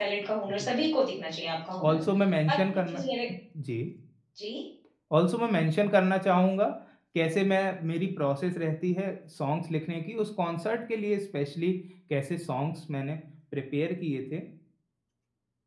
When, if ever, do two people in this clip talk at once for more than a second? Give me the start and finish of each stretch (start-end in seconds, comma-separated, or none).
none